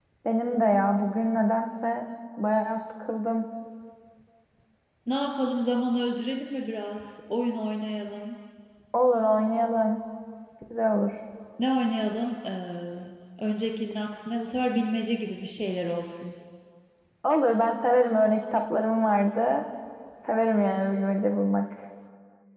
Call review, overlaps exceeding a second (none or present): none